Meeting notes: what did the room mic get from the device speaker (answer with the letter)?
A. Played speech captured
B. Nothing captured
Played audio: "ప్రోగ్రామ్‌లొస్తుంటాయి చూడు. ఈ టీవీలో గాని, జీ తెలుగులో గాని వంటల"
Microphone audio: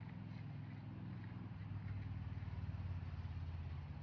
B